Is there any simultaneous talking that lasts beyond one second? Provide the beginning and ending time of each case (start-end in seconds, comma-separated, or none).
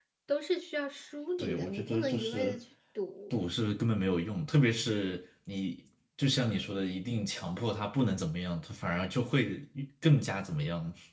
1.4-2.6